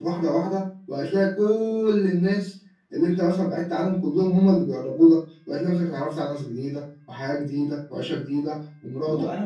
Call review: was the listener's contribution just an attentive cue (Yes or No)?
No